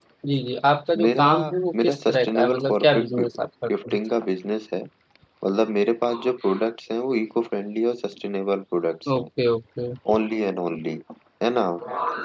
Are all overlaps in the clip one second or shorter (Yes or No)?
No